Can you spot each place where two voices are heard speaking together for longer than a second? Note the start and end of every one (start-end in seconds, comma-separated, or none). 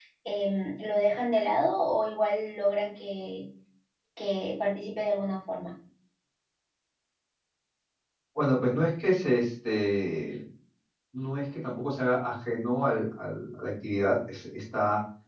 none